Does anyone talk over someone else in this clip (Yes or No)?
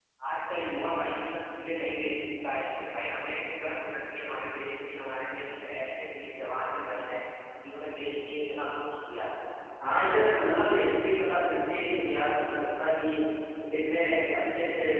No